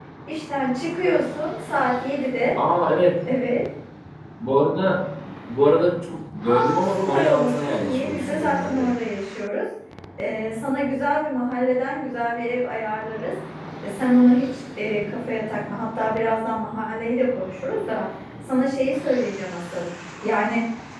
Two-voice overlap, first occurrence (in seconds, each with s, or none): 6.5 s